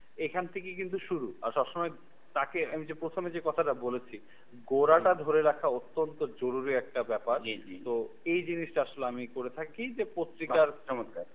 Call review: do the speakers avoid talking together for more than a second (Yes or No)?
Yes